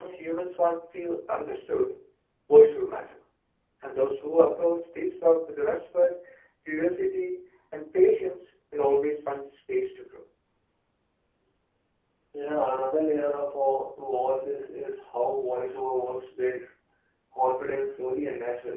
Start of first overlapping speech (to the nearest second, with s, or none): none